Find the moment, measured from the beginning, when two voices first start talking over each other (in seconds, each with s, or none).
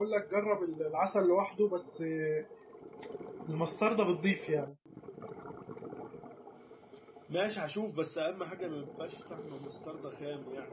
none